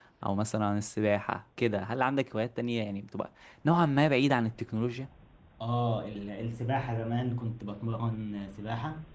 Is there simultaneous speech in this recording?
No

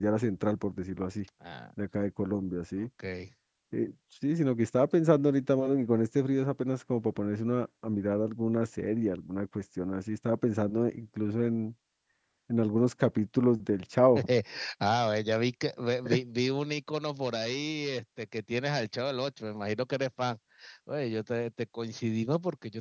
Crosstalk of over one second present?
No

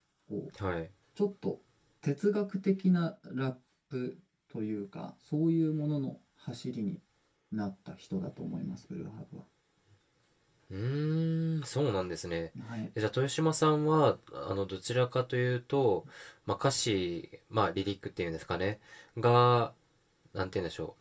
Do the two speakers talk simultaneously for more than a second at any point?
No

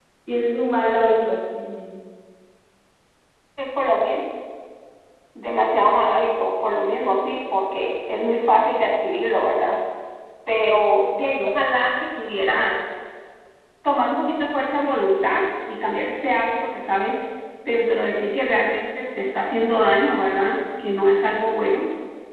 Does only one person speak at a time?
Yes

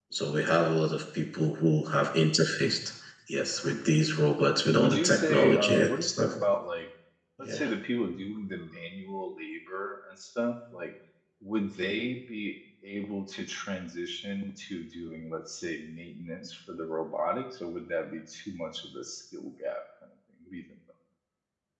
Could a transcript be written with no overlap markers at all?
No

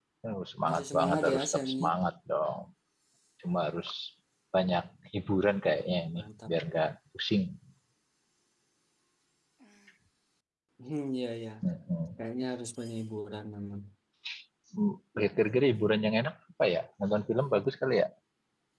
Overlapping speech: Yes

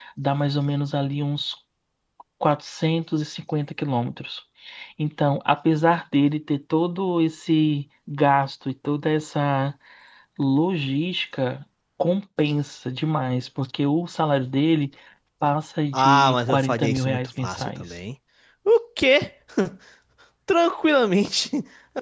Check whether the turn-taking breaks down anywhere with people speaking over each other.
Yes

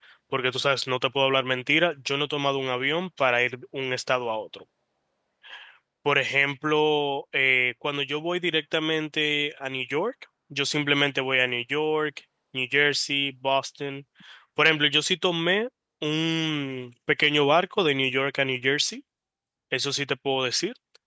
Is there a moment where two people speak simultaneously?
No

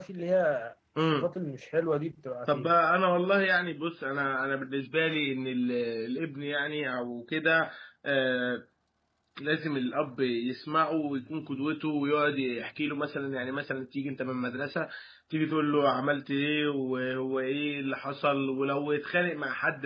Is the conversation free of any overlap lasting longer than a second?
Yes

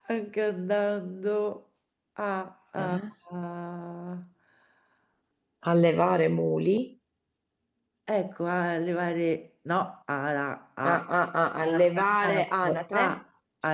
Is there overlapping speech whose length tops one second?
Yes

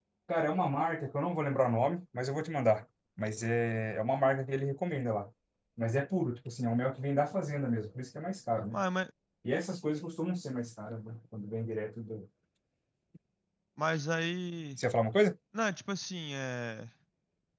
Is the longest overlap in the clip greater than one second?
No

